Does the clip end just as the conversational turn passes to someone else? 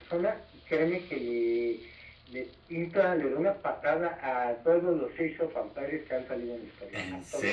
No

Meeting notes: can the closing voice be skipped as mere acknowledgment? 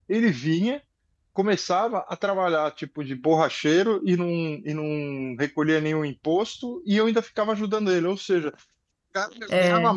Yes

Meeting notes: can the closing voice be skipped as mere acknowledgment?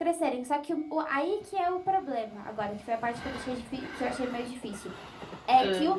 Yes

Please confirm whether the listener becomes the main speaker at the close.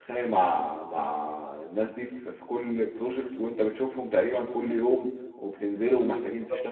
No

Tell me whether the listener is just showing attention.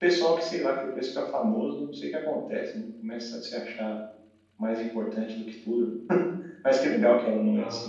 Yes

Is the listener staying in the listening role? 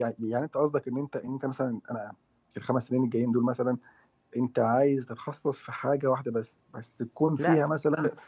No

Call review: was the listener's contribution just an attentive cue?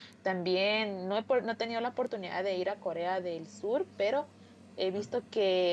Yes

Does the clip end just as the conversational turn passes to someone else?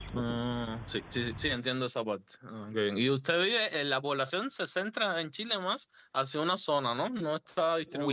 Yes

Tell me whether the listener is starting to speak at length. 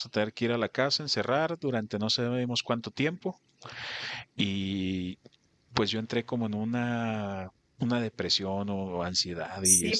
Yes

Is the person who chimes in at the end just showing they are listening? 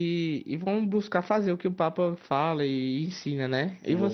No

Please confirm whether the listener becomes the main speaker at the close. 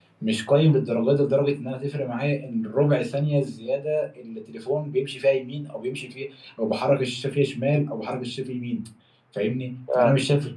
No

